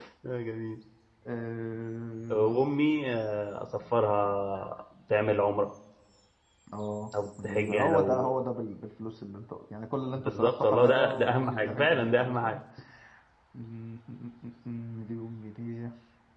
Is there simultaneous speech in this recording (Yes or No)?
Yes